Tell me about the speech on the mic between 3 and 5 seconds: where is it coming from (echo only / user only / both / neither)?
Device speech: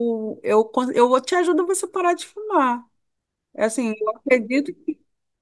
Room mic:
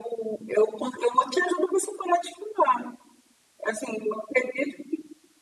echo only